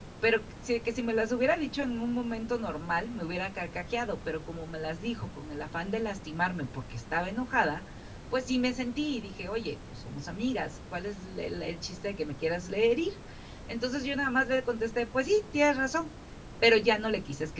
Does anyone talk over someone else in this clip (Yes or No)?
No